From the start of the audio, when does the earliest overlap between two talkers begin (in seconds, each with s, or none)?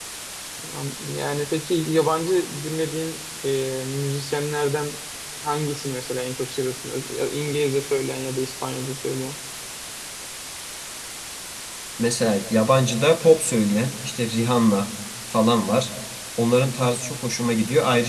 none